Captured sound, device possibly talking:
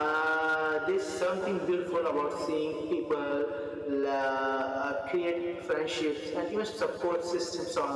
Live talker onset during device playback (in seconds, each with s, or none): none